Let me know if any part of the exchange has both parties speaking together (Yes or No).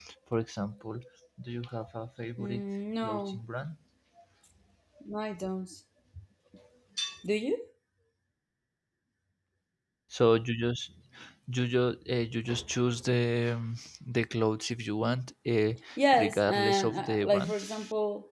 Yes